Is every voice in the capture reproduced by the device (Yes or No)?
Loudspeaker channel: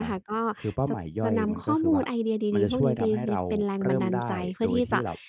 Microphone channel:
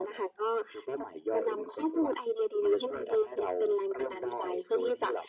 Yes